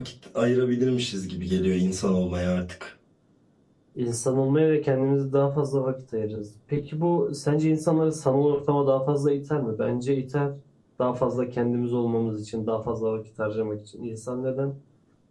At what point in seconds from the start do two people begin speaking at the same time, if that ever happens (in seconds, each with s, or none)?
none